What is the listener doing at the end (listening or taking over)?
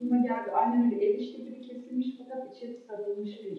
taking over